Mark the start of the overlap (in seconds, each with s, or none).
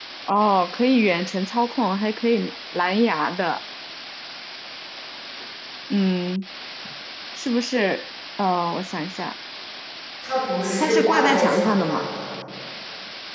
10.8 s